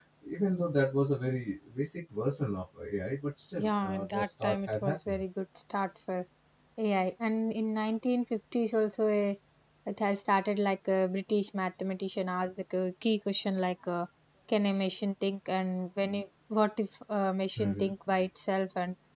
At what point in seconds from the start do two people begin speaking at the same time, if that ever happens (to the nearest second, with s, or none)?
4 s